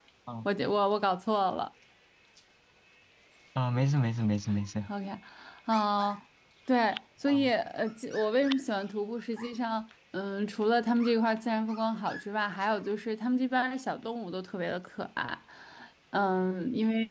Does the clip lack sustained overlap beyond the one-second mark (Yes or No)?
Yes